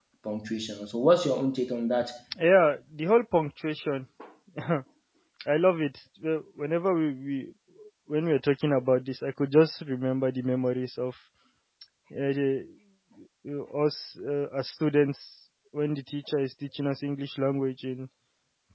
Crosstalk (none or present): none